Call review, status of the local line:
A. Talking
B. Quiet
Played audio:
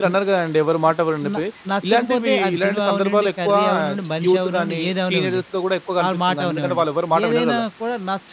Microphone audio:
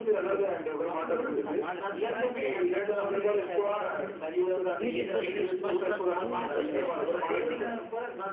A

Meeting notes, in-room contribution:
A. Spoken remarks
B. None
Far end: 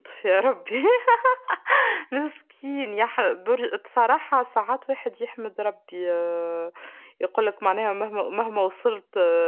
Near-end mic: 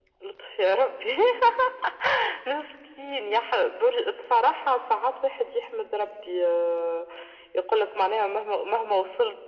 B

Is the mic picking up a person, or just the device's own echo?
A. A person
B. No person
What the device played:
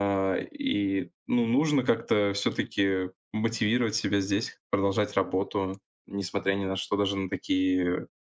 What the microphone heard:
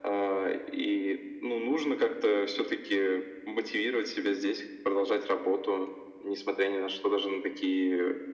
B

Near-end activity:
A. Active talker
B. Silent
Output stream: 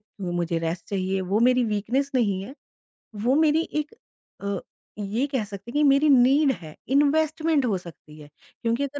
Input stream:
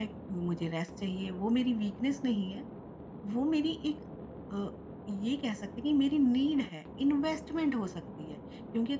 B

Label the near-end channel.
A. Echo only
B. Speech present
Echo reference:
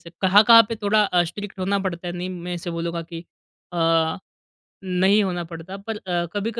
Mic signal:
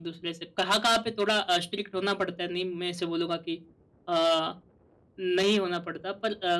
A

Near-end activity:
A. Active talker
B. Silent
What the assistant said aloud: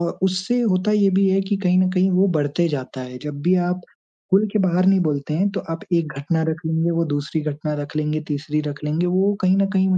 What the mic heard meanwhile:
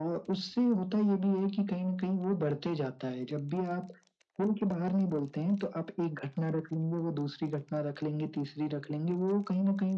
B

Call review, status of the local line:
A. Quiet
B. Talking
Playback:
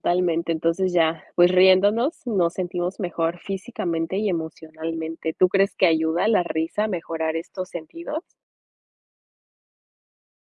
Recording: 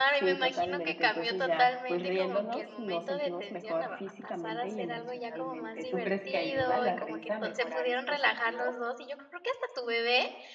B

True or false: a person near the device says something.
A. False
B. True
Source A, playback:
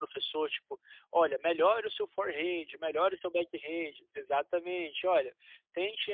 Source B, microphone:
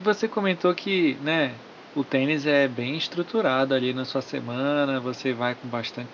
B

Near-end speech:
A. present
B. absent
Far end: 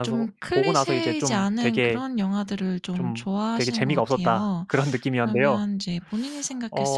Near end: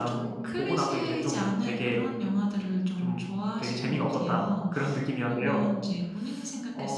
B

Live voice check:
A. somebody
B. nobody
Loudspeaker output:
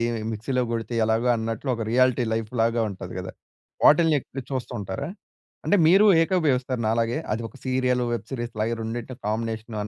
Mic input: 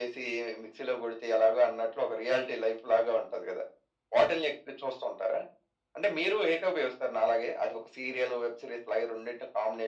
B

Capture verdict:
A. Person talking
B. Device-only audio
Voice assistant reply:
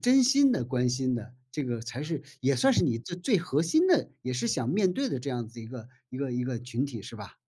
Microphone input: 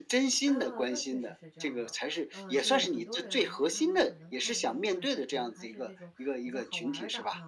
A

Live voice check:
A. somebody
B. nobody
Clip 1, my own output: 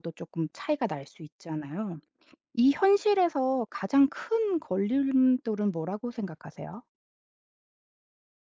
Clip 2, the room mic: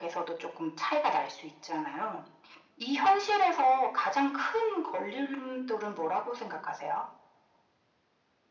B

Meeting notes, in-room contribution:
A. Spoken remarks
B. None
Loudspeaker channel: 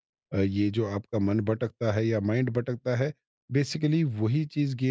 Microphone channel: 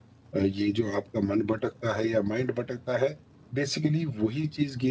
B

